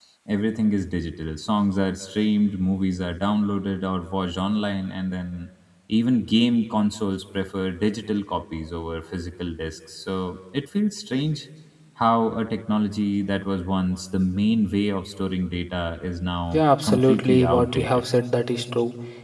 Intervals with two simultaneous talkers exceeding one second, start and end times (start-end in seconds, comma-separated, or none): 16.5-18.0